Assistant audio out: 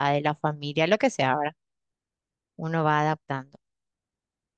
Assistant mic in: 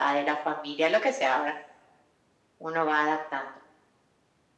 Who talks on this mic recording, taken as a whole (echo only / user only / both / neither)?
echo only